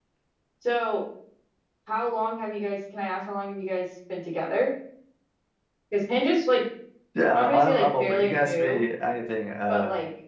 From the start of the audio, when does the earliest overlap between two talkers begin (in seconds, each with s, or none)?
7.3 s